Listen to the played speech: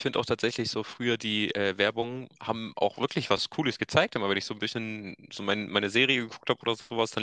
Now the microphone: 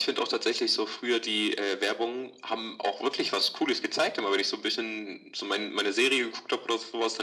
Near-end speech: none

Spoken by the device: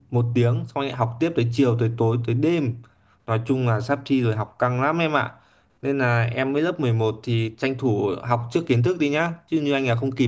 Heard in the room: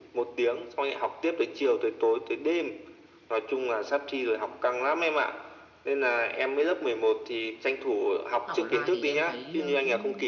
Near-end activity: present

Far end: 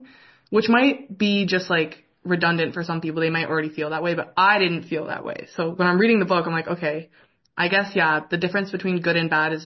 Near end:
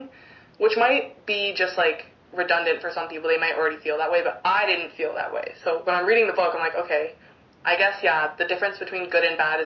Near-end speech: none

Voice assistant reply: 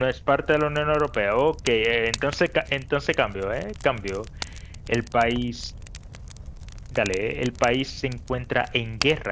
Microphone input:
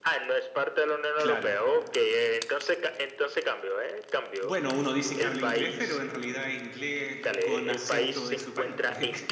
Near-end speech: present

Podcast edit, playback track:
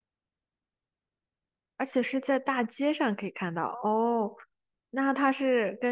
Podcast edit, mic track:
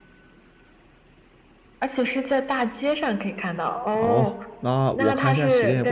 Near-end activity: present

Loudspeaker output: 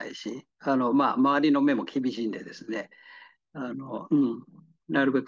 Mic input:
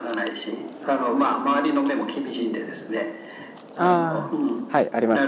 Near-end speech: present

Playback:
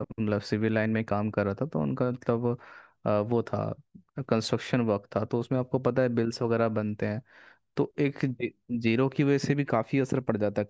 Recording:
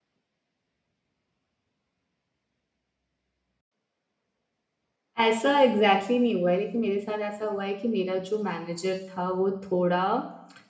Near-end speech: present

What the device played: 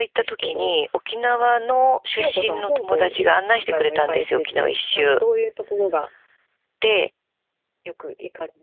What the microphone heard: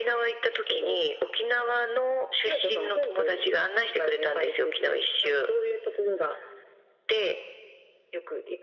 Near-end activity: none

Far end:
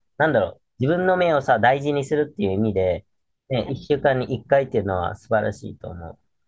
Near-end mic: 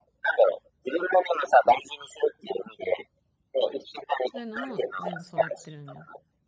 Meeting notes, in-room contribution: present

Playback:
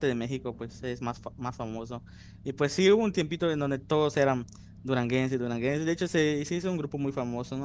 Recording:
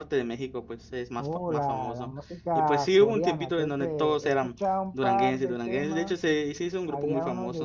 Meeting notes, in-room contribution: present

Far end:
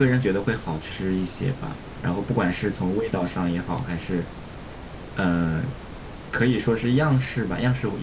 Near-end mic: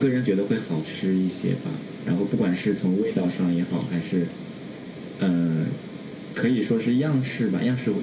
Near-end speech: none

